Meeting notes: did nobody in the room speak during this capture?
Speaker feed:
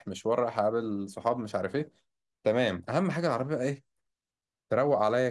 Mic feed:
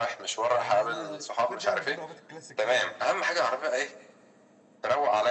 No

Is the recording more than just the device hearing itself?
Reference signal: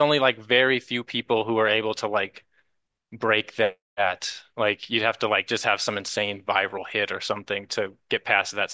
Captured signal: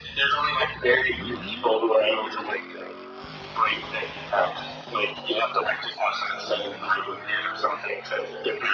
No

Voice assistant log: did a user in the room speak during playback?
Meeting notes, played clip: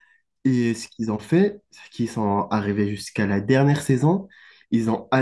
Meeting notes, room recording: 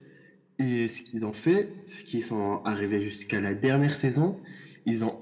No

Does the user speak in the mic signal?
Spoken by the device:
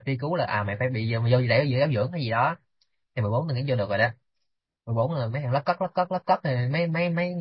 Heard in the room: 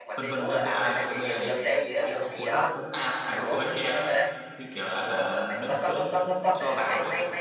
Yes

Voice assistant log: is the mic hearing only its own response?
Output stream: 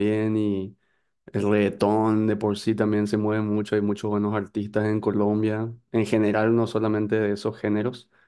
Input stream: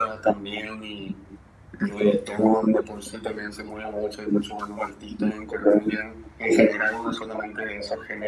Yes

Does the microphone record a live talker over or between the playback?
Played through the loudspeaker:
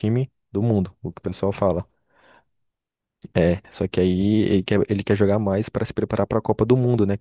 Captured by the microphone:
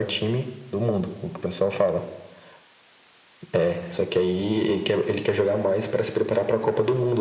No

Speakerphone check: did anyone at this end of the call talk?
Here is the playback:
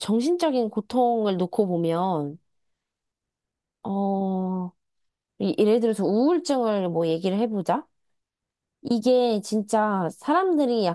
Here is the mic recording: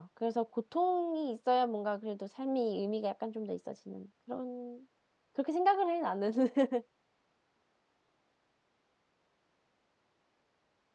Yes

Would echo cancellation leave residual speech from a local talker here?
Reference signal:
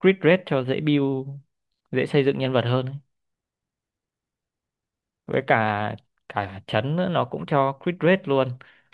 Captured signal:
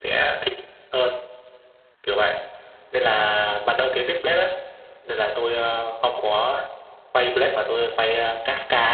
Yes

